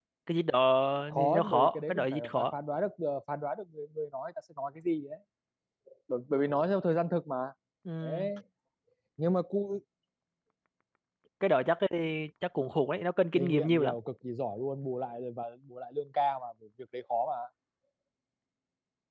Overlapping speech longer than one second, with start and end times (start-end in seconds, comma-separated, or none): 1.1-2.5